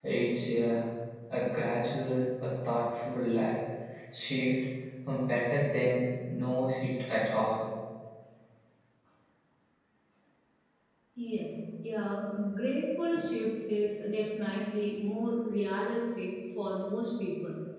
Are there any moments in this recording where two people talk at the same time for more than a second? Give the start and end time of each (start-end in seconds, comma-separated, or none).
none